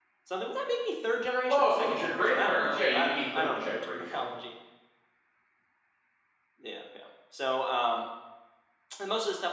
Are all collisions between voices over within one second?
No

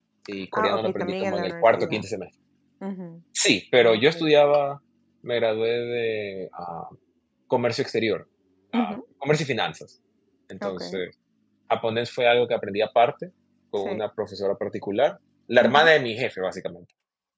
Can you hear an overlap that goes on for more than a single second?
Yes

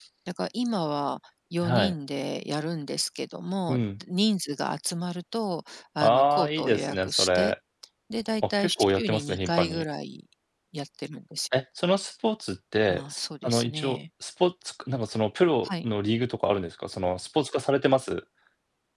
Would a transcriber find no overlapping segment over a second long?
No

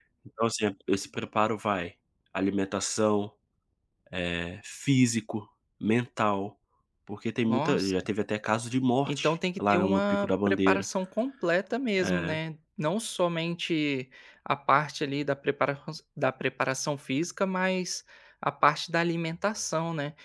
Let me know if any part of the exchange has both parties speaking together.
Yes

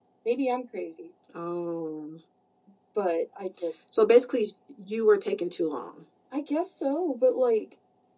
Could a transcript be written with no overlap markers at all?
Yes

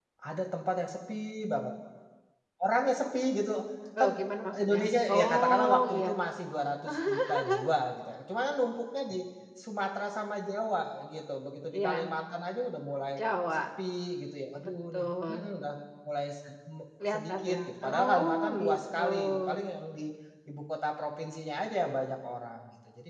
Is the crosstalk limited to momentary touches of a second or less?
No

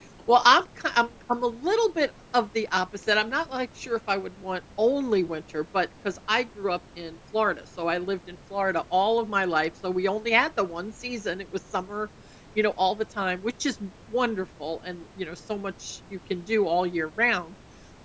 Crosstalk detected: No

